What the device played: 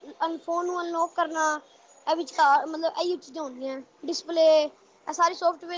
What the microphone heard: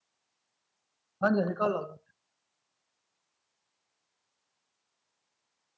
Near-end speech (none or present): present